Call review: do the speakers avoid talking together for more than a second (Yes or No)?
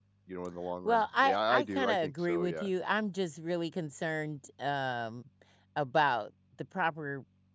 No